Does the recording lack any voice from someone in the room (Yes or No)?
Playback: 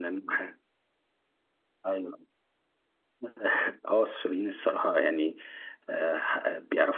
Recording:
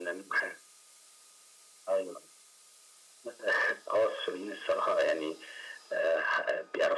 Yes